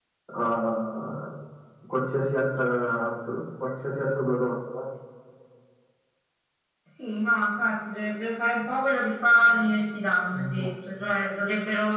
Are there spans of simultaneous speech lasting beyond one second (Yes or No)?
No